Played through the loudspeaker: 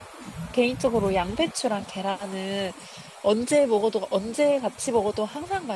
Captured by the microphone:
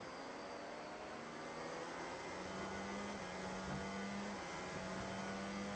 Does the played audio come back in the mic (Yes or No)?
No